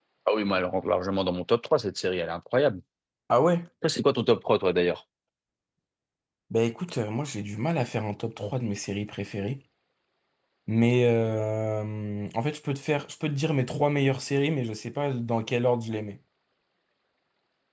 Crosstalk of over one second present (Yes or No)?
No